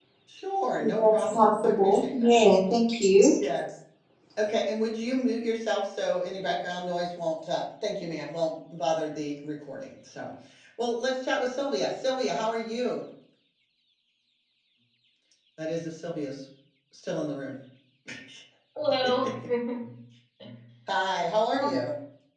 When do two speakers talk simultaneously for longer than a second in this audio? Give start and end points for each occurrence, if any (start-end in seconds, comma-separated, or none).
0.8-2.3